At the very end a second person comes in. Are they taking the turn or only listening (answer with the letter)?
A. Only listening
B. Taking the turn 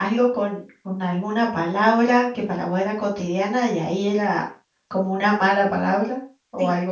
B